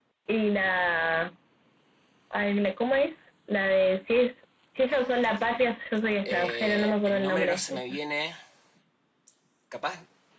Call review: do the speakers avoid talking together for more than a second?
No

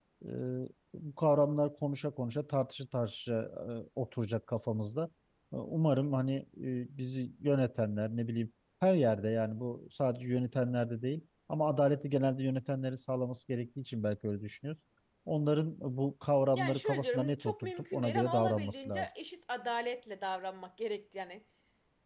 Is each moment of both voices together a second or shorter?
No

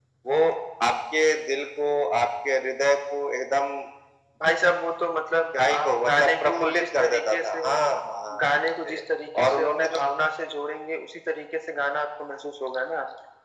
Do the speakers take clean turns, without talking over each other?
No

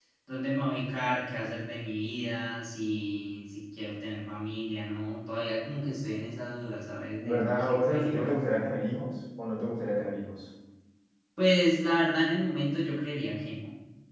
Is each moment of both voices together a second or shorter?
No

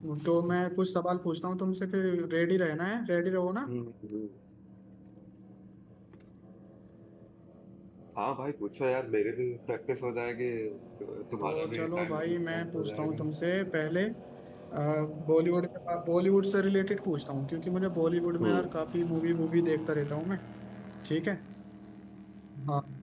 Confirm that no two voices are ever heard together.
No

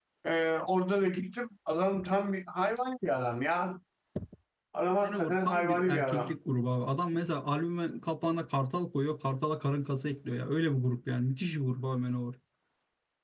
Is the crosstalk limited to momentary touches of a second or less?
No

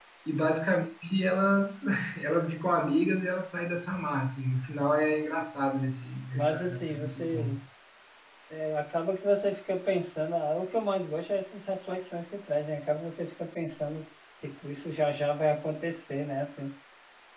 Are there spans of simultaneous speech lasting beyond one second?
Yes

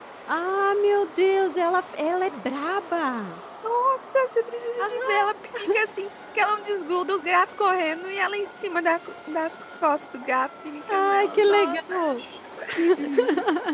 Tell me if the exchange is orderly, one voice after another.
No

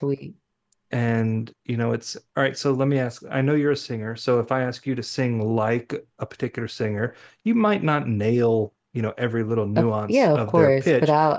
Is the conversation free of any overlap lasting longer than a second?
No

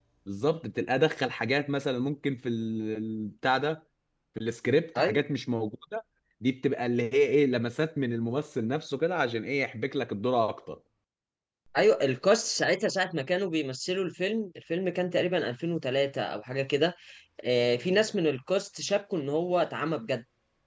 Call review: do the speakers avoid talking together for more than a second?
Yes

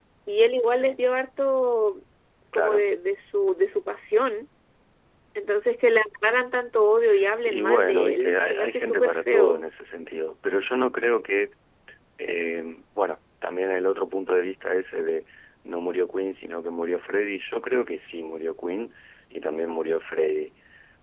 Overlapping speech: Yes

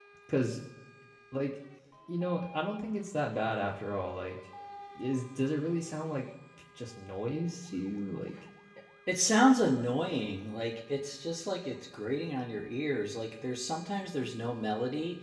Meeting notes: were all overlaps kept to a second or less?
Yes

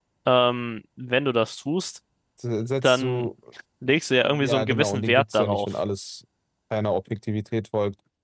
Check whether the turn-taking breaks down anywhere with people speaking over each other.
Yes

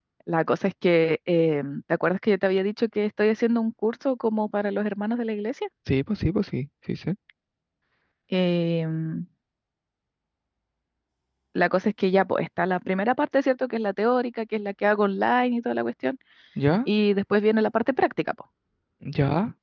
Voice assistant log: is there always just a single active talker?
Yes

